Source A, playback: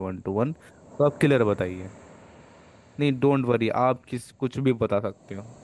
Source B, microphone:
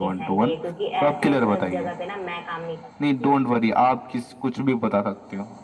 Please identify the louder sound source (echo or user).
echo